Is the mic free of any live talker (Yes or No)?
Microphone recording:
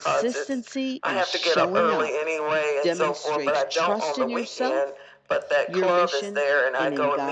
No